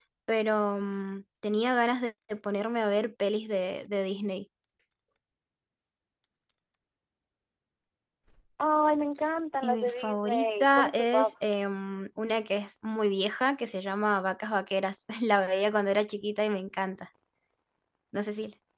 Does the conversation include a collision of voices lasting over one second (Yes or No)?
Yes